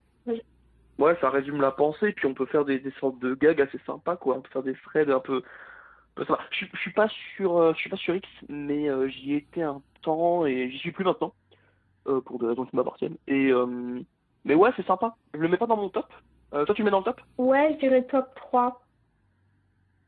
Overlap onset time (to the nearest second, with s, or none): none